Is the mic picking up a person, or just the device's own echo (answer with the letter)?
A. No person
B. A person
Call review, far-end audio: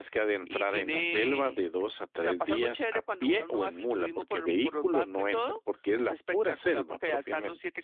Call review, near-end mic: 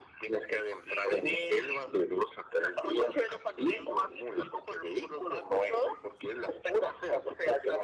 A